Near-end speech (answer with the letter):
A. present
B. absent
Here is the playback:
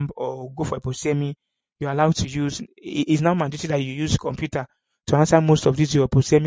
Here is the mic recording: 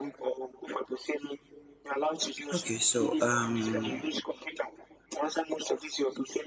A